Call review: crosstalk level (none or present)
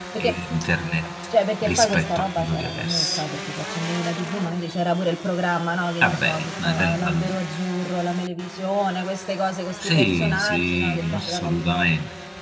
present